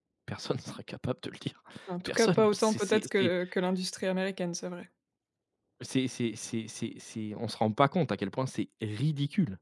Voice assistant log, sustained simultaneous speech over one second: present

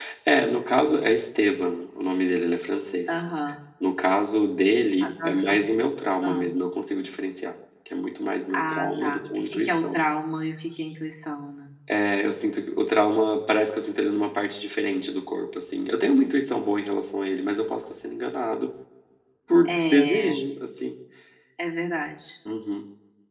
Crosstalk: present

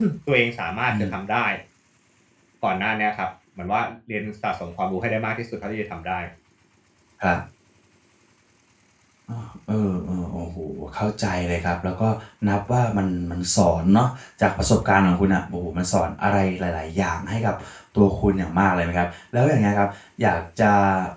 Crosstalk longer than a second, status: none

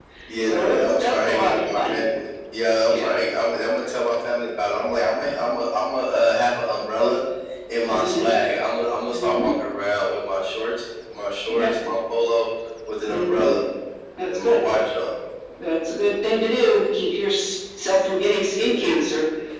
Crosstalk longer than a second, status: present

